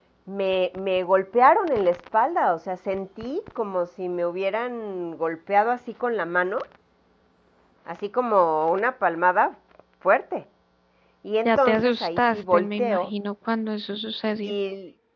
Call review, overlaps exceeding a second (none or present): present